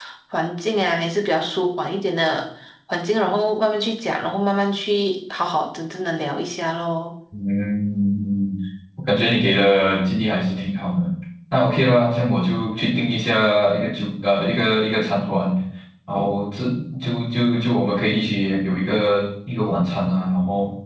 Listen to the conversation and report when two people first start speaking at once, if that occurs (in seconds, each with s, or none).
none